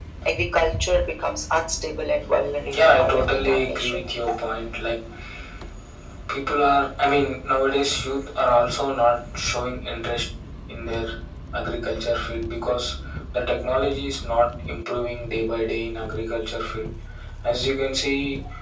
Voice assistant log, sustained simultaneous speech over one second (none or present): present